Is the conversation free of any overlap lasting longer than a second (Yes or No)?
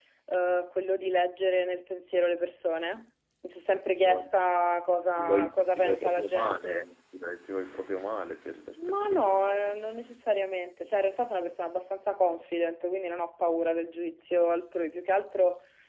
No